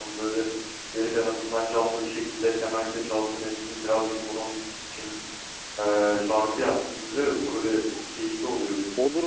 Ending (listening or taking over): taking over